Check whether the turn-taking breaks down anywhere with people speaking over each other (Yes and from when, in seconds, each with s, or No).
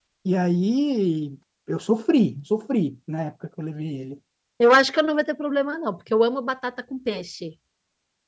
No